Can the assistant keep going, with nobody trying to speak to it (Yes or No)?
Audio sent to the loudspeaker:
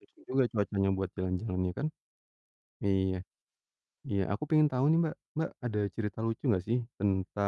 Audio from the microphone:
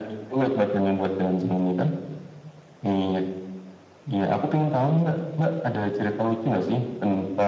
Yes